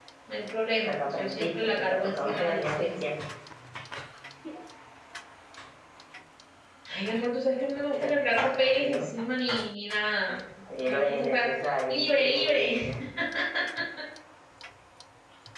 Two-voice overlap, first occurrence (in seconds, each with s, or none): 0.8 s